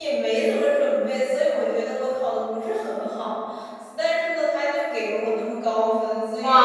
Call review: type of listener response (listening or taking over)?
taking over